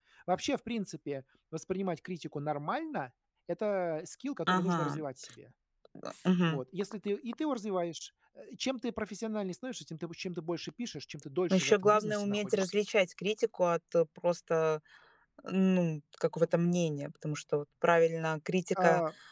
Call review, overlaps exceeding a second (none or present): present